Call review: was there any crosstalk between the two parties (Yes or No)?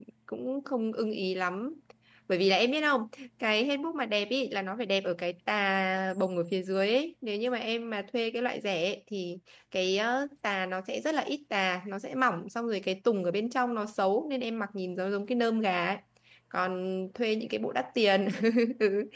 No